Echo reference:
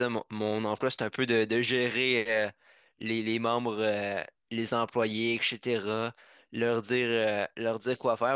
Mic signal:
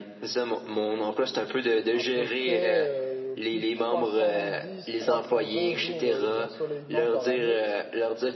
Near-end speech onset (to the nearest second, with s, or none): 2 s